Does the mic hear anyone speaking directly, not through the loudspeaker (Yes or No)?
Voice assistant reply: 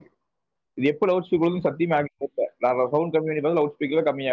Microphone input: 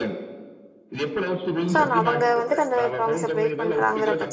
Yes